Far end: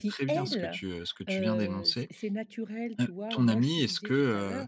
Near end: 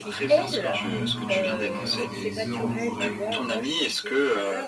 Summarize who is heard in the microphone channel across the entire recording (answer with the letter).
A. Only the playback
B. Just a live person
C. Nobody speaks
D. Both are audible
D